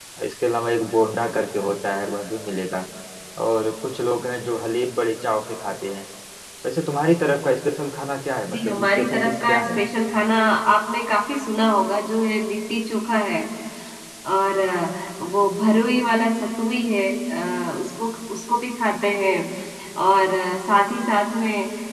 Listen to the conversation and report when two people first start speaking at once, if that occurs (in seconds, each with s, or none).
8.5 s